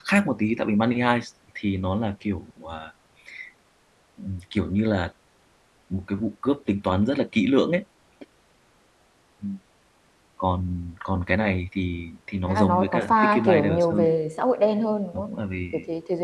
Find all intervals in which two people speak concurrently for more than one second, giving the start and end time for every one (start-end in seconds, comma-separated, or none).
12.5-14.1